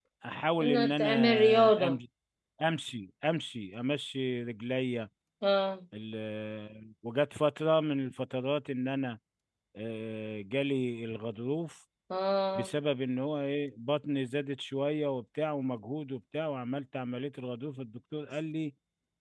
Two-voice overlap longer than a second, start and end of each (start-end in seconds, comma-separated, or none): 0.6-2.0